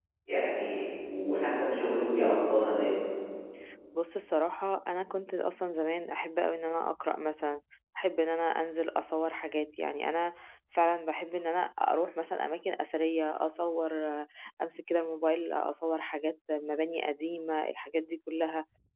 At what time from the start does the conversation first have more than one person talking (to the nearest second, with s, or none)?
none